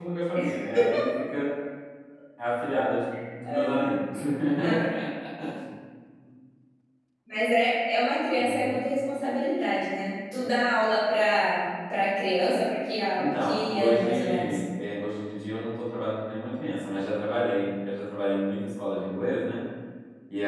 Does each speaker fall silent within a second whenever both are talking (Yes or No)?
No